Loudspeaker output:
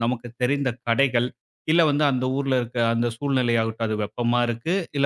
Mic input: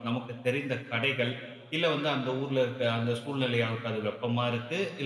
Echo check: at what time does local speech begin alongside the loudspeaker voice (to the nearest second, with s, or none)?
none